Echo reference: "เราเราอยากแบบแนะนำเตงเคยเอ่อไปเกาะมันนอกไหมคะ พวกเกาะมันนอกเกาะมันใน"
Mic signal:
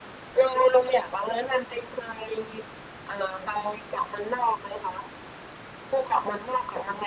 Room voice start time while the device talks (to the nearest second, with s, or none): none